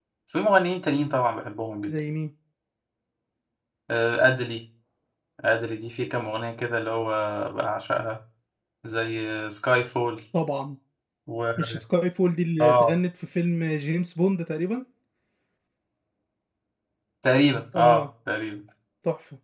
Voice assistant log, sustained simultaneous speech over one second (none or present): none